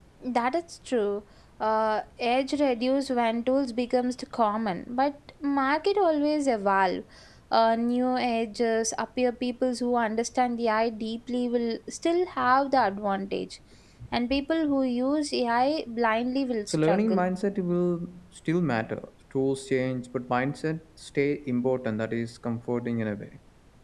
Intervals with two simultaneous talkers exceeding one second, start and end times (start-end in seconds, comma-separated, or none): none